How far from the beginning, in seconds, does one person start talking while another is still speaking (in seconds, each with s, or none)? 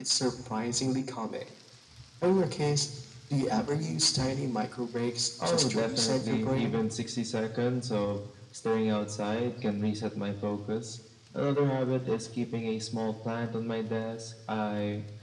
5.4 s